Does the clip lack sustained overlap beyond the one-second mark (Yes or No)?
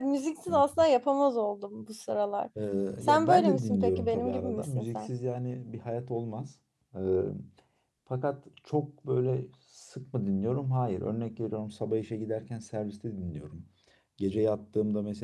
No